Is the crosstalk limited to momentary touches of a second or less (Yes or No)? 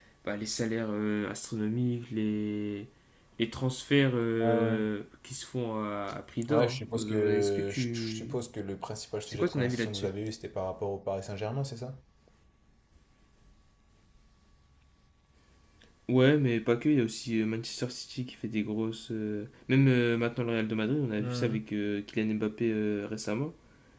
No